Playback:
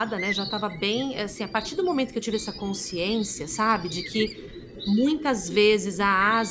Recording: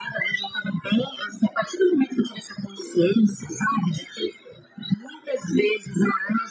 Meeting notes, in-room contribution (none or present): none